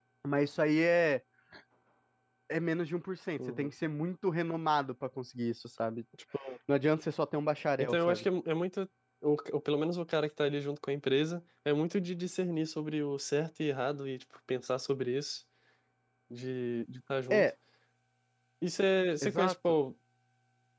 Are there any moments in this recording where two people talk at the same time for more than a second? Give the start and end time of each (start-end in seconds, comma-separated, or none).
none